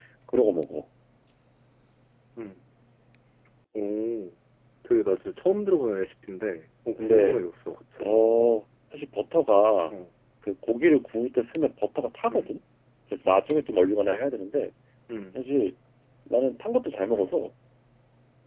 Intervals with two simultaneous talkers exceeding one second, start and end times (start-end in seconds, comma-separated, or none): none